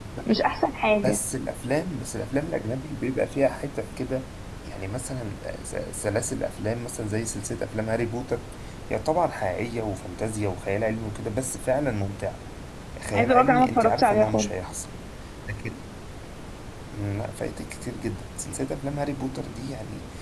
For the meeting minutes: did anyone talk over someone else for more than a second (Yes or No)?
Yes